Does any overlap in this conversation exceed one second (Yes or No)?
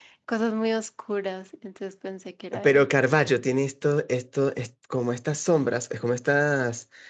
No